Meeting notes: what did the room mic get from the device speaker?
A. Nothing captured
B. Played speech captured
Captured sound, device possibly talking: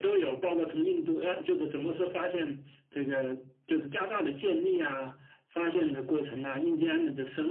B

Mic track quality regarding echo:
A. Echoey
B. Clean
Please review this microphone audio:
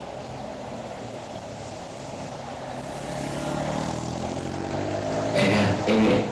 B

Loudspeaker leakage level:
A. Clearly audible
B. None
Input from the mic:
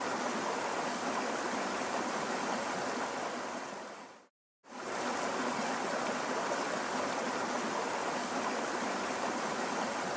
B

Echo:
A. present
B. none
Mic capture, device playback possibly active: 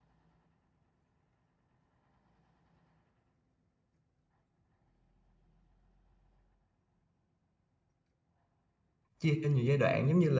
B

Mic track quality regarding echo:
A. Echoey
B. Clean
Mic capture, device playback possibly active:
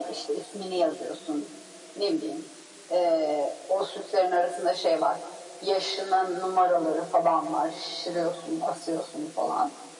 A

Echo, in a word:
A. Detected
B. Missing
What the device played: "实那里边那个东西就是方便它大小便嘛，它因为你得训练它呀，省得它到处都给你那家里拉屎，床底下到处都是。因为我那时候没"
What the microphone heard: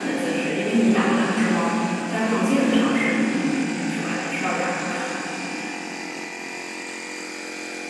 B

